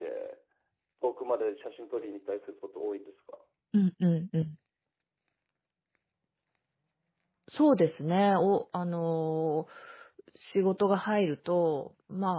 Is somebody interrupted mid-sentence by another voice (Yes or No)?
No